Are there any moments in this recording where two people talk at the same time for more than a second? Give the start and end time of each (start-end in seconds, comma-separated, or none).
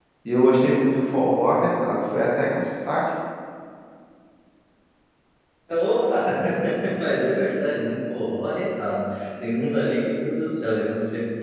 none